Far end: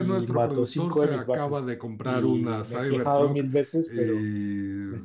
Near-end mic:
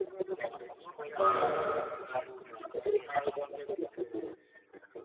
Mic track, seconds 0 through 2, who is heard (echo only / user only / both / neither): both